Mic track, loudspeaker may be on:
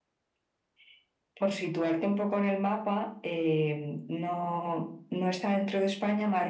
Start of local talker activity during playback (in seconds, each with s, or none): none